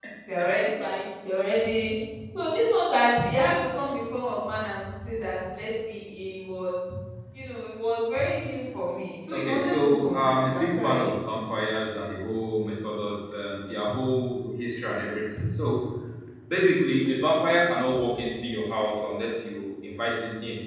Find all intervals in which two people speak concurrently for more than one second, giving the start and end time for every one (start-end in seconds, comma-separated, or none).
9.3-11.1